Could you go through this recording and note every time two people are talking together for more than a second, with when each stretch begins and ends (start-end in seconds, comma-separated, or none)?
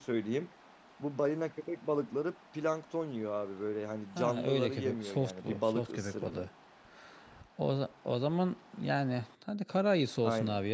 4.2-6.5